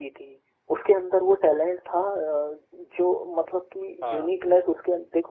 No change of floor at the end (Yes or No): Yes